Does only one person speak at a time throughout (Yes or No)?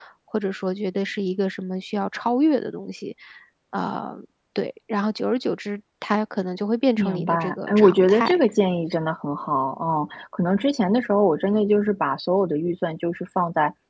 No